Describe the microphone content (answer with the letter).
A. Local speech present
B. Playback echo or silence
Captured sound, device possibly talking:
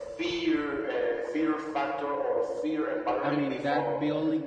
A